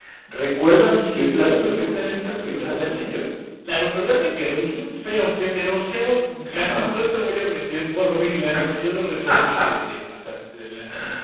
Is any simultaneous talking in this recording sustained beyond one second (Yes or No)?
Yes